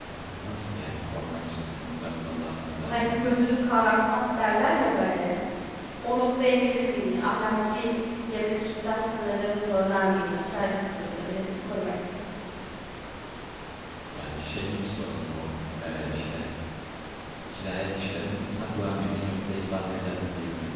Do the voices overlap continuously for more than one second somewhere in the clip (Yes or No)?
No